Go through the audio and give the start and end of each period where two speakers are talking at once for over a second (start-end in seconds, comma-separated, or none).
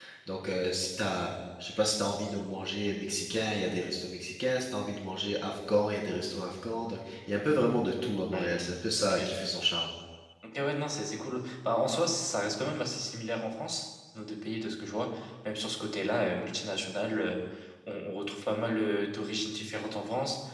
none